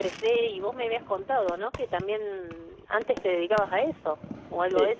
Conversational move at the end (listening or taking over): taking over